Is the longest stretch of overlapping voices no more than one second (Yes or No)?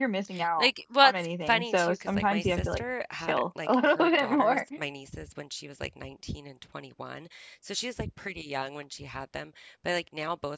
No